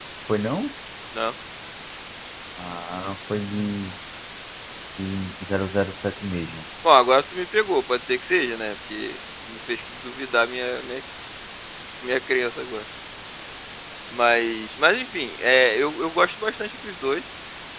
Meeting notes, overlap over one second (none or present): none